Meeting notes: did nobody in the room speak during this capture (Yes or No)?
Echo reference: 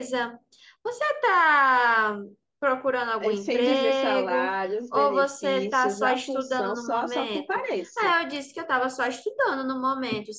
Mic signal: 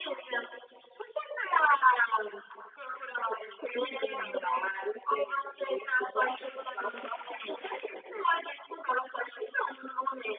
No